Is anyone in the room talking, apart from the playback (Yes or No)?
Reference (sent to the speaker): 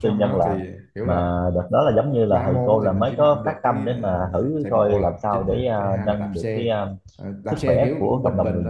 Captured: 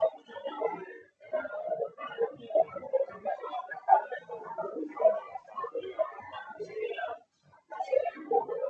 No